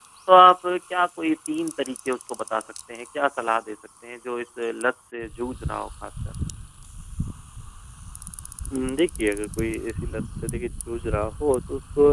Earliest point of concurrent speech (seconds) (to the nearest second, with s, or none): none